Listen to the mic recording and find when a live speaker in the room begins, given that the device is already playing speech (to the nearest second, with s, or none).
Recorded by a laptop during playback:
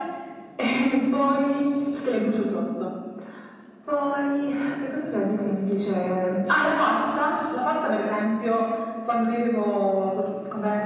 none